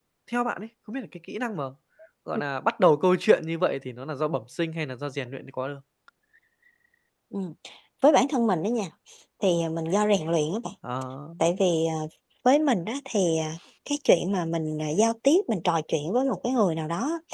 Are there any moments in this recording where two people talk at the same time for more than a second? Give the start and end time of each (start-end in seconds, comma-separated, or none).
none